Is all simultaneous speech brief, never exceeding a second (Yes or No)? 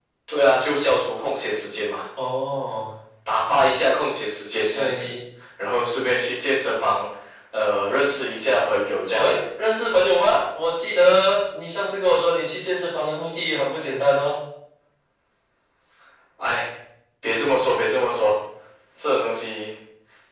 Yes